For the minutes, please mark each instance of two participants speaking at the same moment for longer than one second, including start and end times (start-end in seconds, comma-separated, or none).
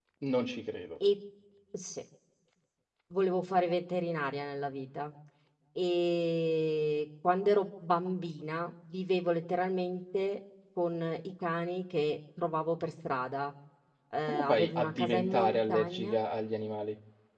14.3-16.2